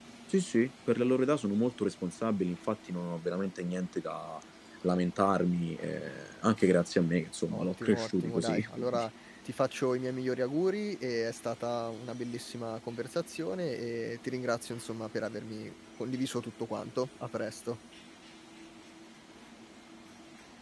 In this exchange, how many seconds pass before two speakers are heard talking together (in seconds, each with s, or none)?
7.5 s